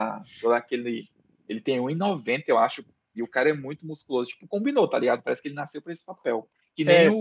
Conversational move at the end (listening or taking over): listening